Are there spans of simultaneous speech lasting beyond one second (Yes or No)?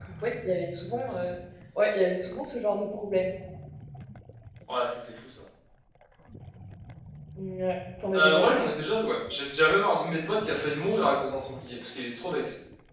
No